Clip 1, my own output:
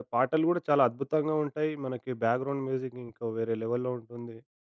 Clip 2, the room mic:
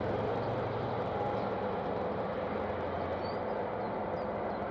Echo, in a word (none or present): none